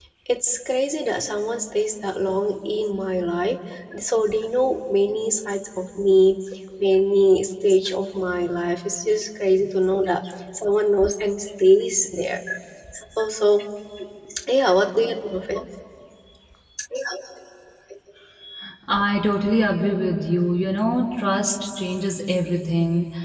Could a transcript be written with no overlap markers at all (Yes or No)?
Yes